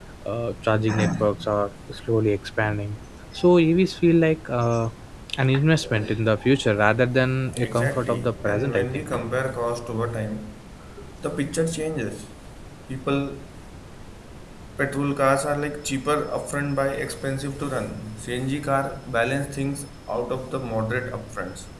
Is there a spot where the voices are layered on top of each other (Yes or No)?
Yes